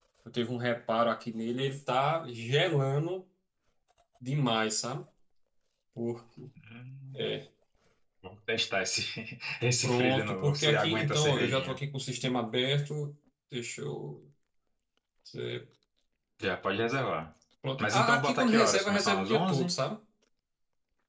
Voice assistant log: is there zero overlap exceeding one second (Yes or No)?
No